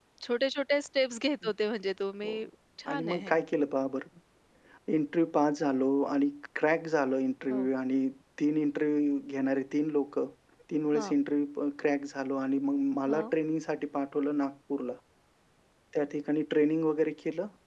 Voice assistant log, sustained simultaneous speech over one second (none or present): none